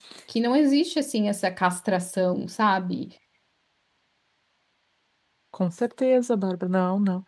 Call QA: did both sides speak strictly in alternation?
Yes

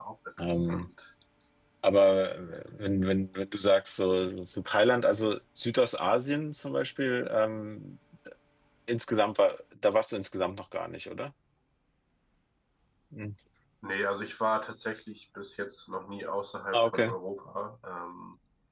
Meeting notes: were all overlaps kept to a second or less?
Yes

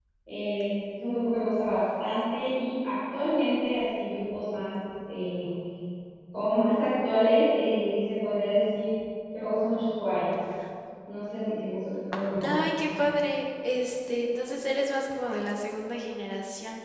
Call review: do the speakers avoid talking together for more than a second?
Yes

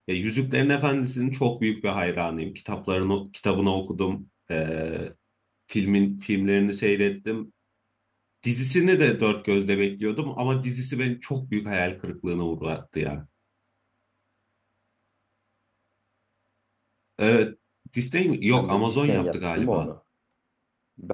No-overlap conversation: No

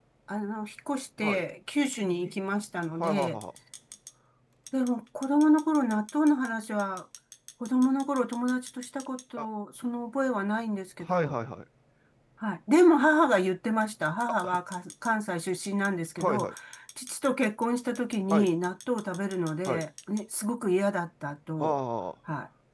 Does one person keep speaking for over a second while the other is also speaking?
No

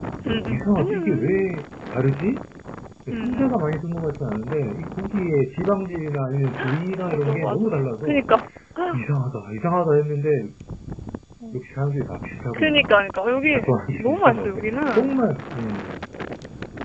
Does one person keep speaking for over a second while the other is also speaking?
Yes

